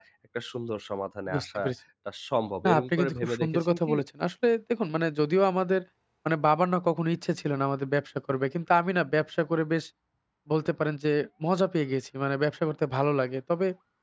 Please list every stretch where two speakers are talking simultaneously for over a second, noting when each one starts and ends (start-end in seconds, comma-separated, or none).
2.7-4.0